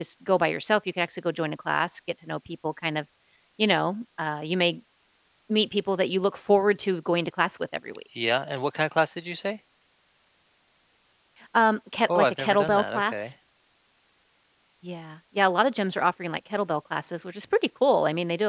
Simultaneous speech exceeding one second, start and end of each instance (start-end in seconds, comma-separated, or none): 12.1-13.3